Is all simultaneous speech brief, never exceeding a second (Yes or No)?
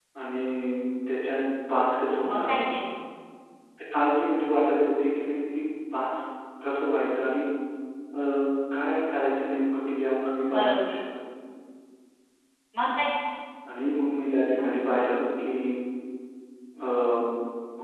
Yes